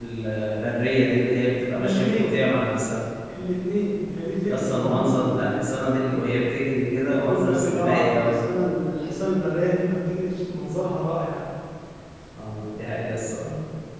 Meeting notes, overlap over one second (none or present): present